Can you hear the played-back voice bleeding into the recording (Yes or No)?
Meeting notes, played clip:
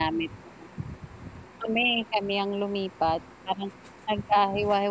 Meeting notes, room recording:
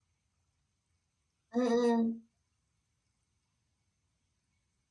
No